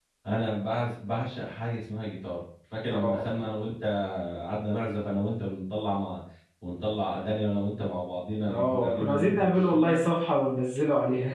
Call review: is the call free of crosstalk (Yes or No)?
No